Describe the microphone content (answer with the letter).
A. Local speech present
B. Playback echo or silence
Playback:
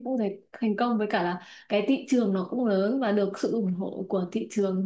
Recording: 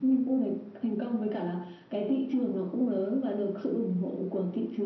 B